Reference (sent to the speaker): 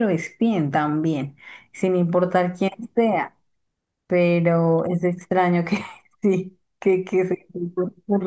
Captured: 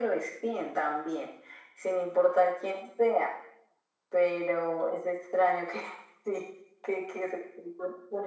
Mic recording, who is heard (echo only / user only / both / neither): echo only